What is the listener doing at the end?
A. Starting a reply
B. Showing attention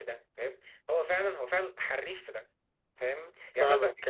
A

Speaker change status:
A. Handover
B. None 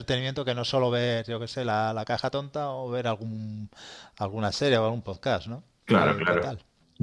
A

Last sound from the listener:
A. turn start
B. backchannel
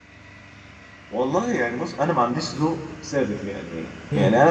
B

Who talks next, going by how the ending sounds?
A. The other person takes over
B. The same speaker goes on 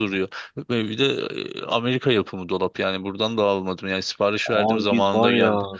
A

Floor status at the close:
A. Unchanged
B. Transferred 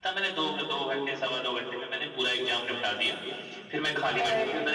A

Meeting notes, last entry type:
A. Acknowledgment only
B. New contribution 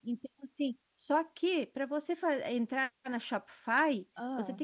A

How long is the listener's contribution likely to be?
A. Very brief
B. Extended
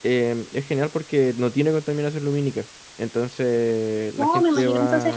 B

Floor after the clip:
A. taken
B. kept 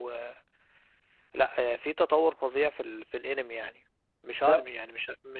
B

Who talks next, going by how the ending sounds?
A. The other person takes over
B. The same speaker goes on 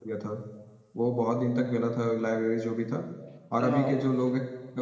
B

